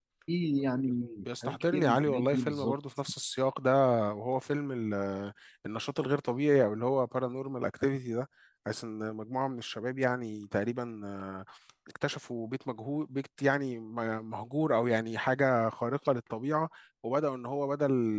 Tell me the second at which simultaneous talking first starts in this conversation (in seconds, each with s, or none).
1.3 s